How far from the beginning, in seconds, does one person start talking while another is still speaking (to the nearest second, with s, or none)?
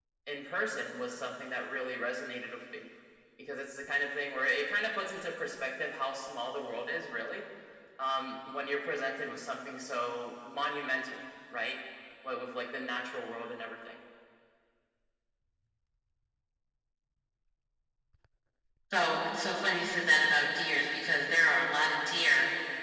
none